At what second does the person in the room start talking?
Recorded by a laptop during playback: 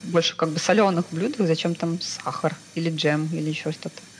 none

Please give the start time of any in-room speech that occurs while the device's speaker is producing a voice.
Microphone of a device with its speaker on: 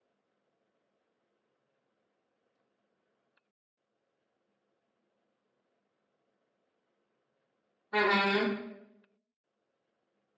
7.9 s

